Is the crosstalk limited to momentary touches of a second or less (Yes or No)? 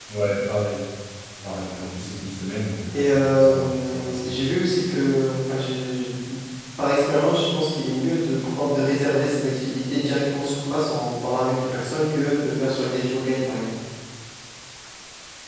No